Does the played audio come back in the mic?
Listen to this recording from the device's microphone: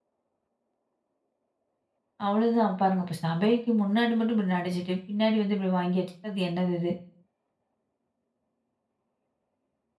No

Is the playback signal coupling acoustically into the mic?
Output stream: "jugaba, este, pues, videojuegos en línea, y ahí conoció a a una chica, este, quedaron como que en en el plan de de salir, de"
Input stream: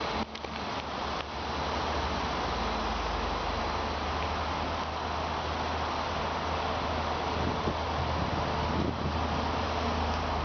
No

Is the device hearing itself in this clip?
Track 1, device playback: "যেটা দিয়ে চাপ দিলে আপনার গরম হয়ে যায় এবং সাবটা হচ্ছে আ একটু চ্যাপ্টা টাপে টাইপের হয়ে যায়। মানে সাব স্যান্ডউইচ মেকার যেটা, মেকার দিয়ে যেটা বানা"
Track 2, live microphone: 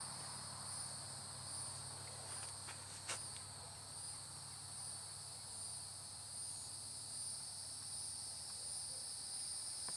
No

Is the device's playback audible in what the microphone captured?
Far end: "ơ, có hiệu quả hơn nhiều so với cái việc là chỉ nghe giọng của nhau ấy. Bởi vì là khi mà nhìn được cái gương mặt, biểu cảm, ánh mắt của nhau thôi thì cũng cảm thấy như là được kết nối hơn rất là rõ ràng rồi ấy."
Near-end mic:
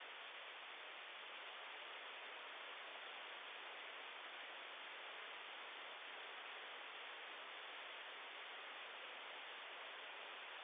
No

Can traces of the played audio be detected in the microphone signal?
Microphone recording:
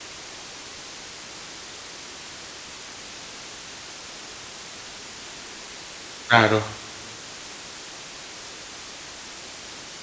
No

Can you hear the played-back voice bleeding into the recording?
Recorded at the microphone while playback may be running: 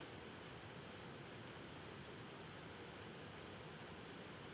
No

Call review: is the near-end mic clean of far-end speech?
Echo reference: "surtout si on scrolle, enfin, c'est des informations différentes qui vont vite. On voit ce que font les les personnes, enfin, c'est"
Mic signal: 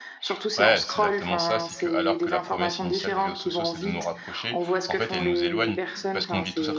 No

